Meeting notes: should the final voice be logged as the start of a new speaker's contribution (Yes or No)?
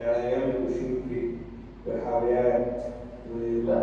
Yes